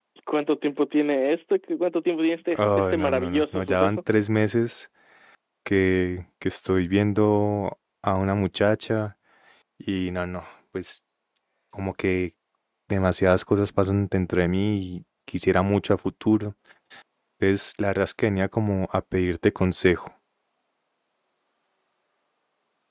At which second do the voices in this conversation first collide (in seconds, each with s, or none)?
2.5 s